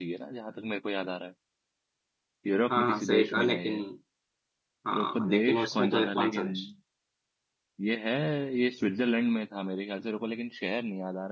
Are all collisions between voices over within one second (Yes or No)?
No